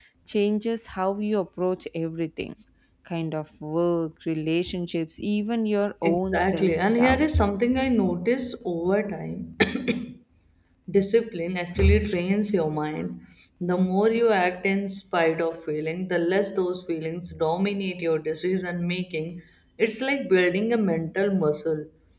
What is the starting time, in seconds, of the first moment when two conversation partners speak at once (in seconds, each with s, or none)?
6.0 s